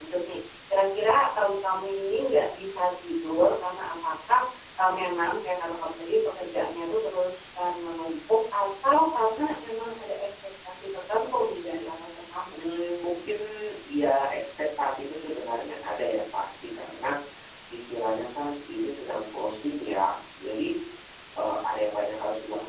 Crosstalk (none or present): none